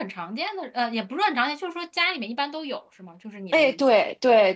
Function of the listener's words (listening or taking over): taking over